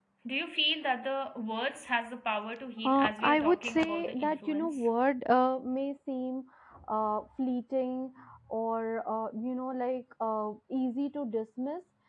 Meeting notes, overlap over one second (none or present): present